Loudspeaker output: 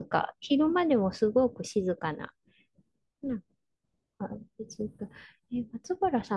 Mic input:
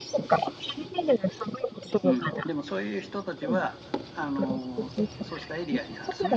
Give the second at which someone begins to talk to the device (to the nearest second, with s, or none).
2 s